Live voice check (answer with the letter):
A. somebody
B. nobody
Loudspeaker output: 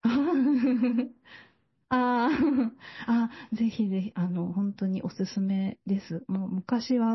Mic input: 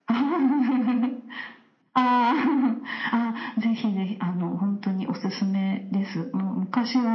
B